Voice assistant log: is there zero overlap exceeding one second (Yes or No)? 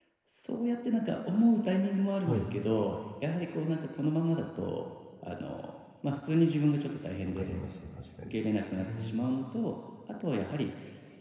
Yes